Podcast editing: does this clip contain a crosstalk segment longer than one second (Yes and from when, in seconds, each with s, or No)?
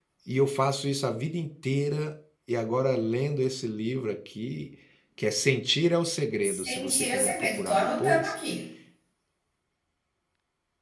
Yes, from 6.4 s